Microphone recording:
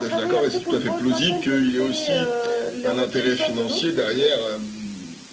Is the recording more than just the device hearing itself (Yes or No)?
No